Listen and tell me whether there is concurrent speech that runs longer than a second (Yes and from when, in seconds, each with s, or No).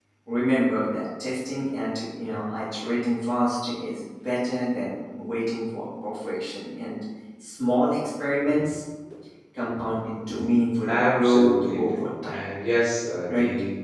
Yes, from 10.9 s